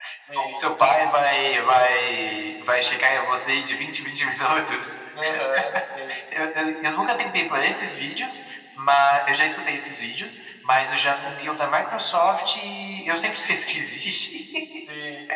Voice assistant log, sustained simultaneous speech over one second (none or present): none